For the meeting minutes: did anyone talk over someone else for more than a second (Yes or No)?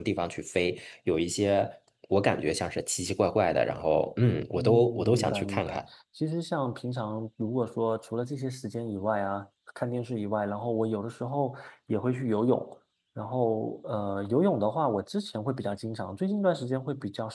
Yes